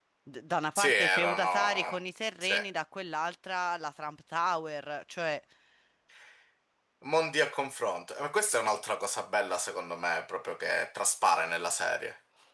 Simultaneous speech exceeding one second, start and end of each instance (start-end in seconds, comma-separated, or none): 0.8-2.0